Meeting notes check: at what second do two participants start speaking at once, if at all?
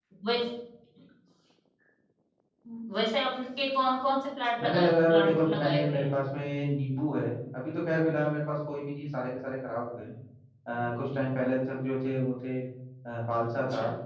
4.6 s

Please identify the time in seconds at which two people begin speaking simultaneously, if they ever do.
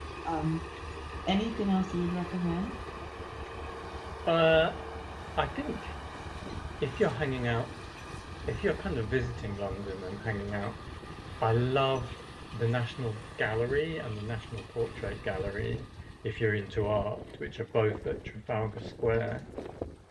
none

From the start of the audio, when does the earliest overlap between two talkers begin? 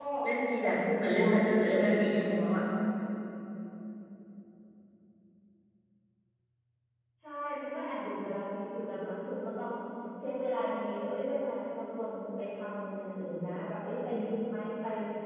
0.6 s

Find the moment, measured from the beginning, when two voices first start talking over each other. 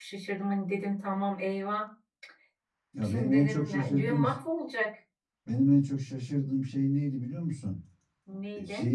3.0 s

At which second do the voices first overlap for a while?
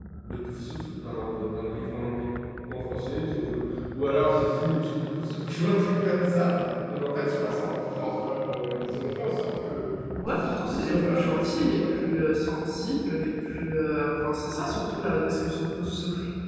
10.1 s

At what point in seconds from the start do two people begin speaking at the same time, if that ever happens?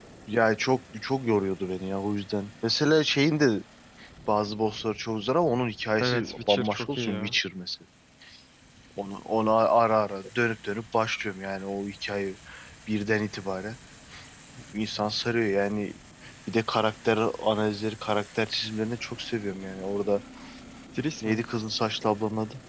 6.0 s

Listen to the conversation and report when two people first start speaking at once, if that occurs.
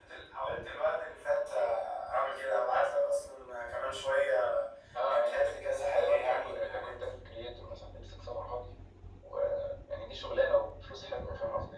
5.0 s

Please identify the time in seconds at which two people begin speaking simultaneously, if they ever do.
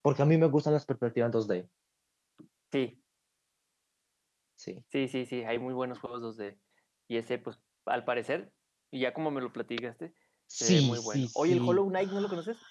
10.6 s

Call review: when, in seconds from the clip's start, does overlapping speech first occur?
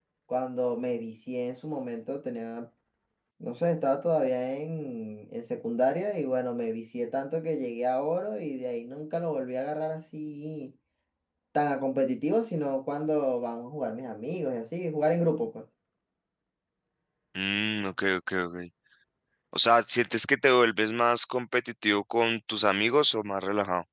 none

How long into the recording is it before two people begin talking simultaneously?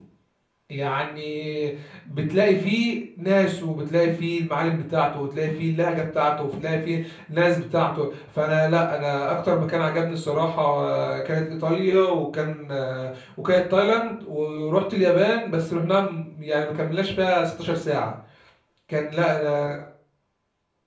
none

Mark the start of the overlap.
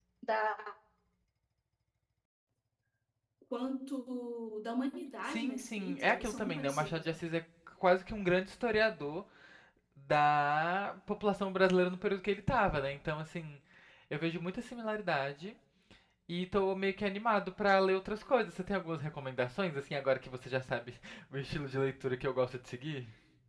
5.3 s

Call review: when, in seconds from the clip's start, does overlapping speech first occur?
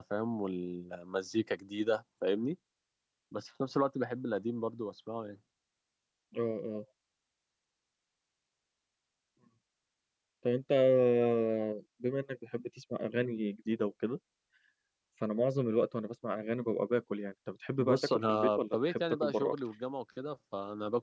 17.8 s

